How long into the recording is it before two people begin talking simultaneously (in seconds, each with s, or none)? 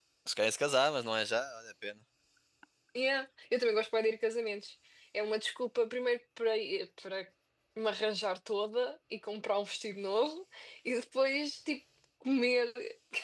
none